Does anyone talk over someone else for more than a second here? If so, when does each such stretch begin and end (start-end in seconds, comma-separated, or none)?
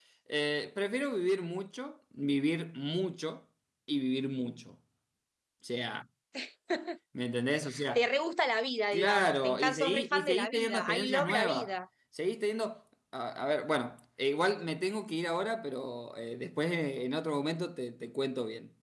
8.9-11.7